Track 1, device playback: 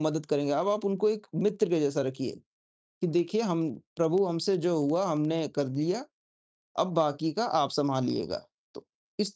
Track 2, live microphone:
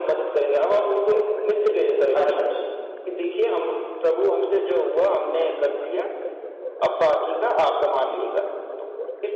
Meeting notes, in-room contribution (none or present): present